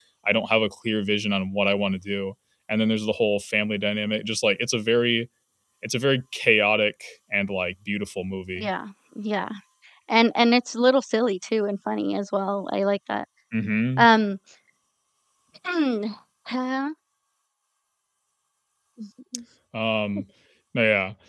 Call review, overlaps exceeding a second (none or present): none